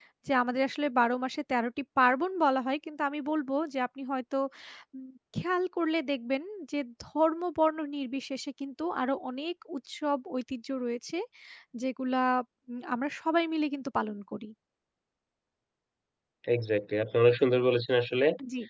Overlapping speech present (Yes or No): No